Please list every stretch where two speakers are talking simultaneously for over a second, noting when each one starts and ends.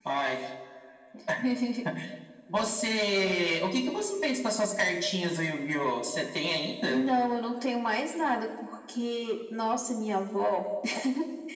none

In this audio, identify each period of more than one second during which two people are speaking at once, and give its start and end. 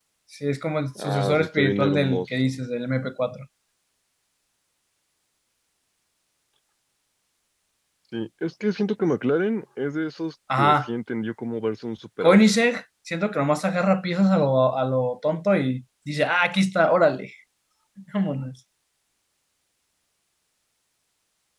1.0-2.6

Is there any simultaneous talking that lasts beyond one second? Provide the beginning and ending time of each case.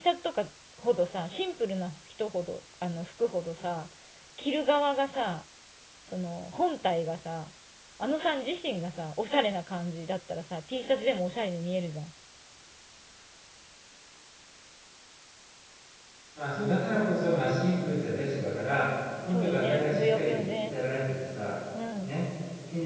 19.2-20.7

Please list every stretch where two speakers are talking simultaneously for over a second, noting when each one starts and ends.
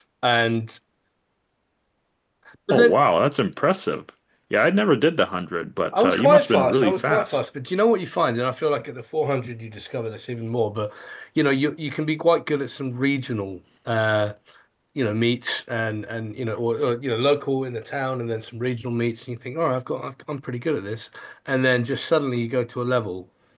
6.0-7.4

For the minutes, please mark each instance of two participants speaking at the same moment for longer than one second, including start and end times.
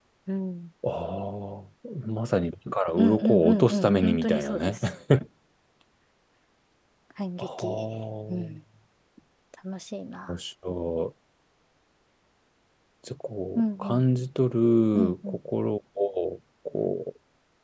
3.0-4.8

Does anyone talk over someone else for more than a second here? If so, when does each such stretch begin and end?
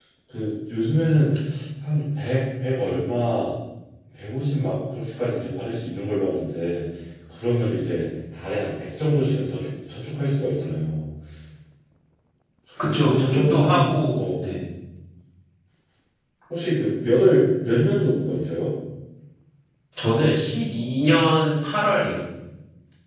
12.8-14.2

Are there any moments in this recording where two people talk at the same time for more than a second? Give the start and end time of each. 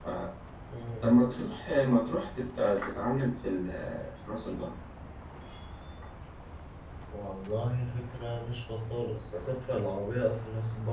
none

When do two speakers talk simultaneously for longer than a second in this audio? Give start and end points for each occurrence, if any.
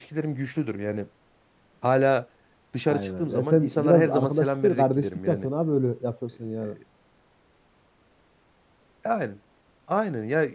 2.9-5.4

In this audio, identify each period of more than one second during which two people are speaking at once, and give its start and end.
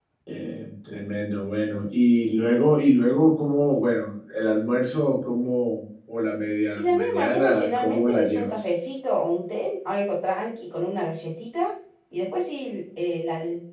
6.8-8.7

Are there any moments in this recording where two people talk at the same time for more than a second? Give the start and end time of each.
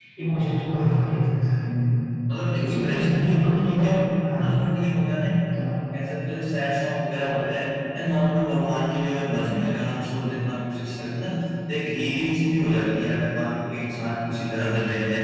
2.6-3.9

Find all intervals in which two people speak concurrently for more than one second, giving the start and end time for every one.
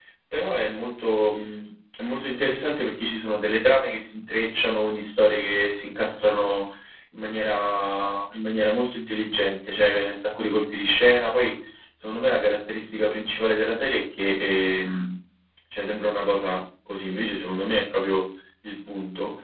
none

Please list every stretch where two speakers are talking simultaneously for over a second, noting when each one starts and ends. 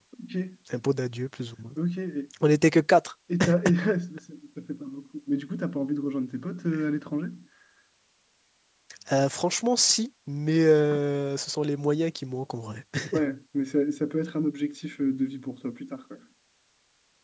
none

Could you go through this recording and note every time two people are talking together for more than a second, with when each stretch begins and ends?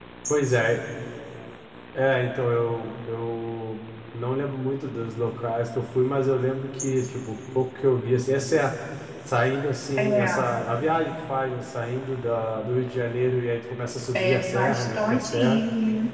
14.1-15.6

